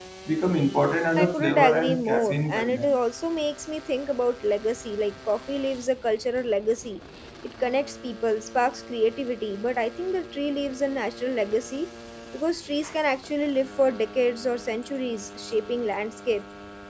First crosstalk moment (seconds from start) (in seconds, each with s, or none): 1.2 s